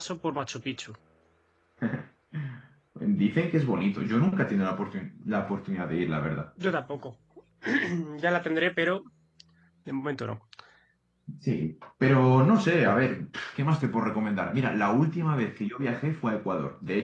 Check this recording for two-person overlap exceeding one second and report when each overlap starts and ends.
none

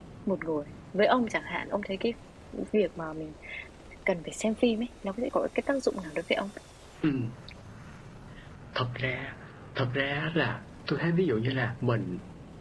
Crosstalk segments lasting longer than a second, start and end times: none

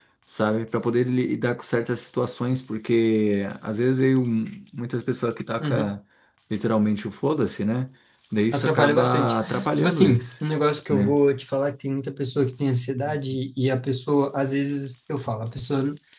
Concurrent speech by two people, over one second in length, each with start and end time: 8.5-10.2

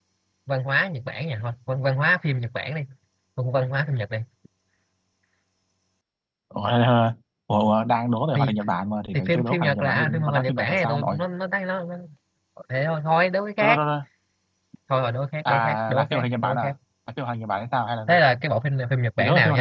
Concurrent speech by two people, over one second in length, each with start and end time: 9.1-11.2, 15.4-16.7

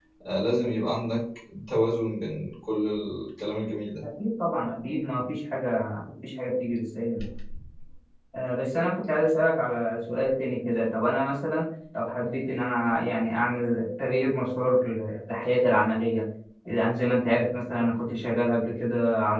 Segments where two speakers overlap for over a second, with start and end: none

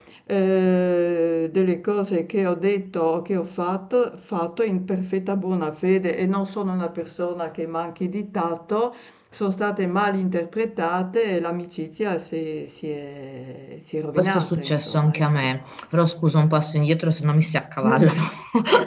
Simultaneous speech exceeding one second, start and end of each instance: 14.2-15.5

